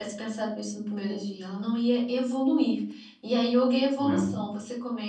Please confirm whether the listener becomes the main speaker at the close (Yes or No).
No